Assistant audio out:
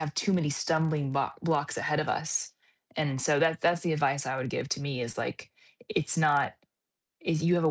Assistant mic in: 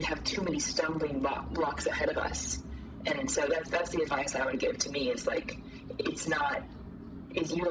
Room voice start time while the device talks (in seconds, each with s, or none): none